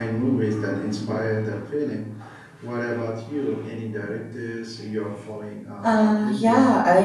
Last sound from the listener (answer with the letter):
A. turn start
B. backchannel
A